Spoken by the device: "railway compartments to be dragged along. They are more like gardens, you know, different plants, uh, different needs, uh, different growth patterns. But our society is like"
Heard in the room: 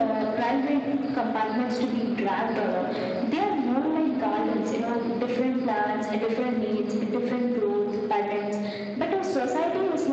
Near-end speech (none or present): none